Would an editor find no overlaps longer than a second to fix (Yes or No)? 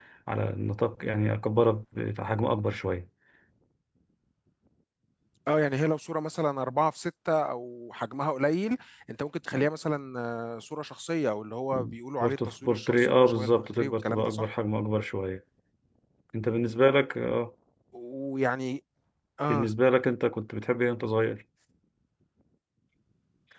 No